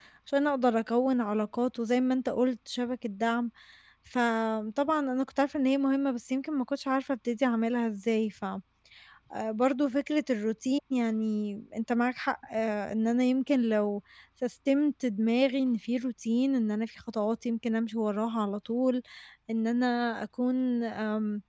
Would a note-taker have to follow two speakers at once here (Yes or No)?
No